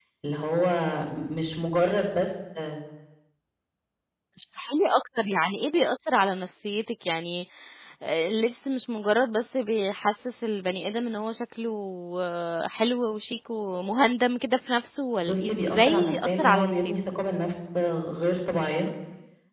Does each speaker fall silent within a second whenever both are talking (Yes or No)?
No